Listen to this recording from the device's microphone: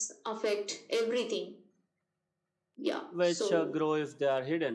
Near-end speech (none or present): present